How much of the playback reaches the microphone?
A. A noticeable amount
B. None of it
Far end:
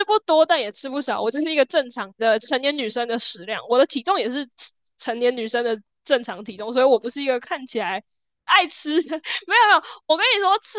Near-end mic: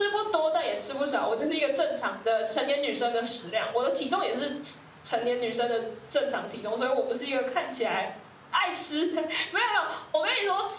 A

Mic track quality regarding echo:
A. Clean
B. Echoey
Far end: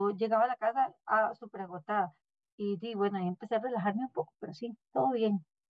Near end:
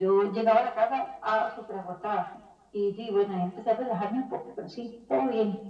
B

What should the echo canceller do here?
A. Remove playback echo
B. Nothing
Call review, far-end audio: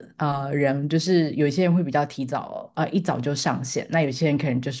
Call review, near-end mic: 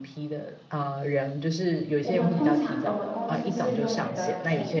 A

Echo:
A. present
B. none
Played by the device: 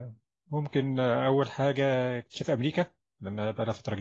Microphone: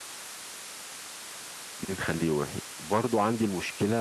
B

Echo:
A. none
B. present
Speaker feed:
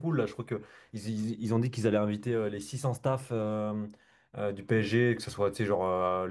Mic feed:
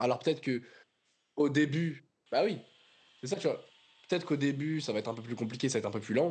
A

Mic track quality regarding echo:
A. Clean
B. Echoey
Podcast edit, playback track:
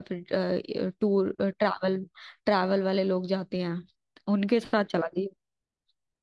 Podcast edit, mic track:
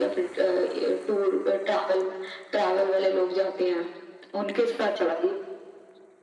B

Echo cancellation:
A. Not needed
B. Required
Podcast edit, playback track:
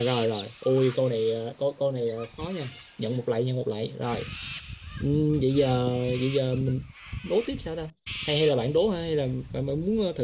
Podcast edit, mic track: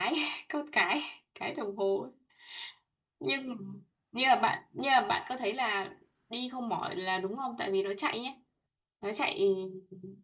A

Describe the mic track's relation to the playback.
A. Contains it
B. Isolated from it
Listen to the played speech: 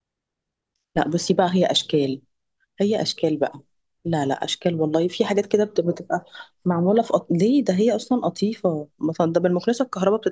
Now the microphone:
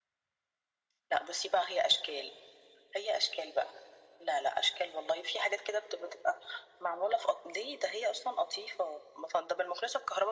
A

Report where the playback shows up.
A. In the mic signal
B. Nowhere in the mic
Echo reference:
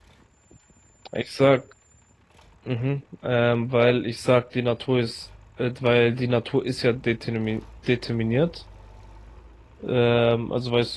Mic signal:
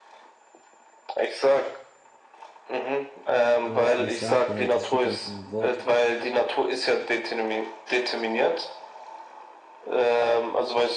A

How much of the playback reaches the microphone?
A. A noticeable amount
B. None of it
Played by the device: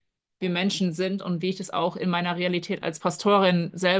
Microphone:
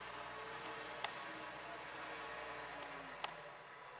B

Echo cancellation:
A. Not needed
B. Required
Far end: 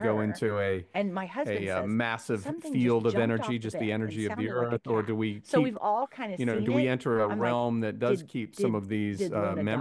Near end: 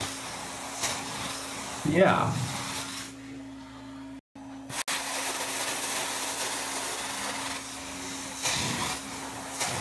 A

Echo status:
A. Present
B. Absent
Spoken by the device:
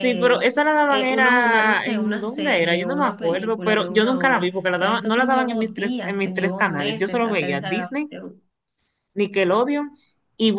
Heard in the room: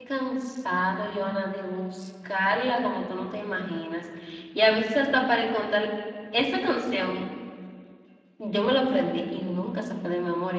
B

